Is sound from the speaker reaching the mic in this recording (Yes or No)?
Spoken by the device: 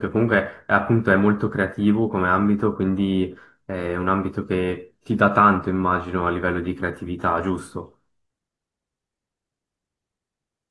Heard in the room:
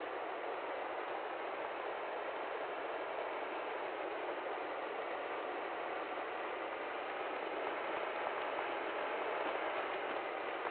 No